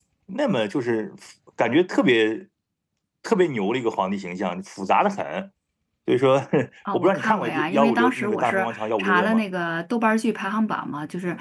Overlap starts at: 6.9 s

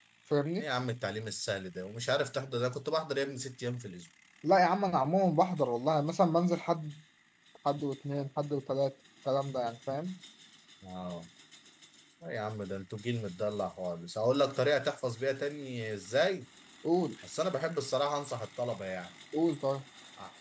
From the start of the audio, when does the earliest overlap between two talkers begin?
none

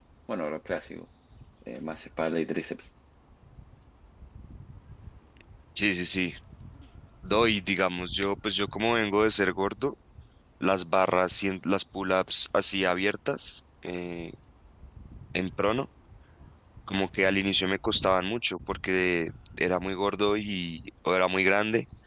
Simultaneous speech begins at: none

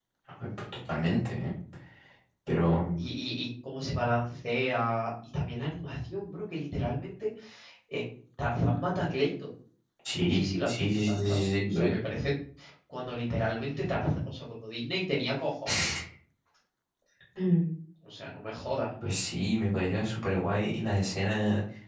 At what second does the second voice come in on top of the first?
10.2 s

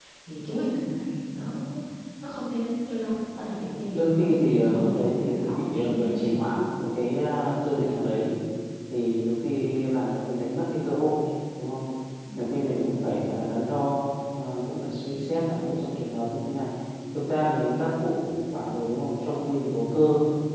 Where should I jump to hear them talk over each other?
3.9 s

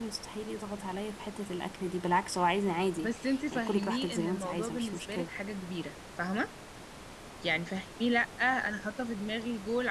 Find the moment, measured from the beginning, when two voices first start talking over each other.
3.0 s

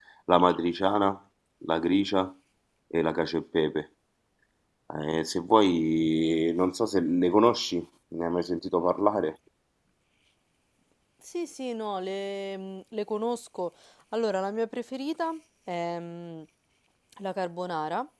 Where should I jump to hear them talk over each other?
none

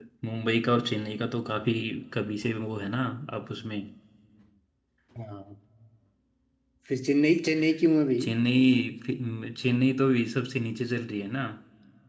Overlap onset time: none

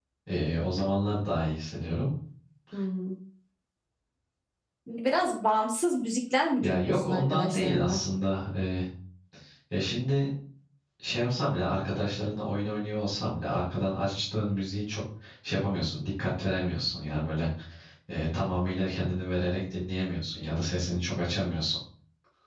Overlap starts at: 6.6 s

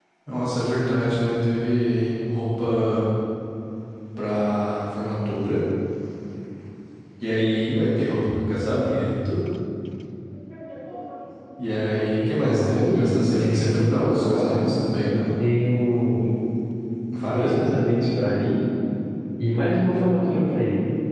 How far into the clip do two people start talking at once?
12.2 s

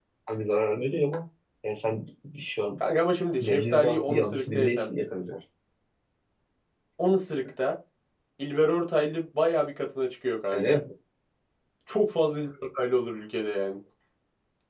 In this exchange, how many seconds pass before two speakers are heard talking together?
3.4 s

